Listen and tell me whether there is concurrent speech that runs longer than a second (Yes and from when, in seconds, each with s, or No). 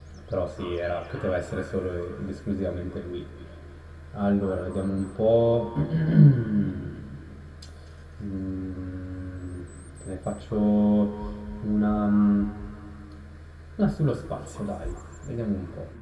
No